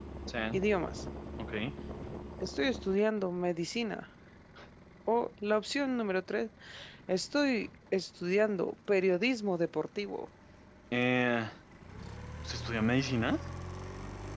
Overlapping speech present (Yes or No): No